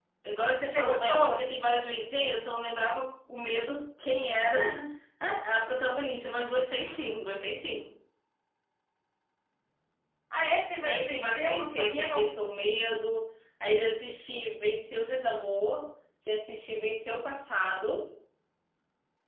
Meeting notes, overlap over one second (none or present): present